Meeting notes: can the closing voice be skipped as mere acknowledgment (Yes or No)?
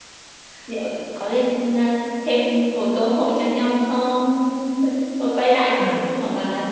Yes